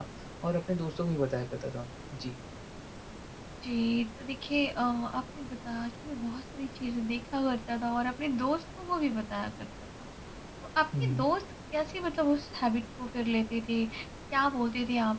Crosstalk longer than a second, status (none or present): none